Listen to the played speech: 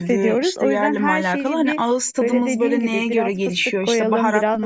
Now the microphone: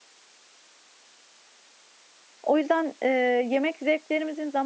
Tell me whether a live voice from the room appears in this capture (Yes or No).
Yes